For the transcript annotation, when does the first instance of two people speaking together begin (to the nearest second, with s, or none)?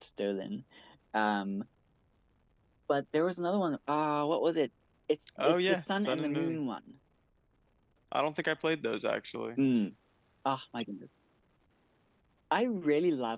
5 s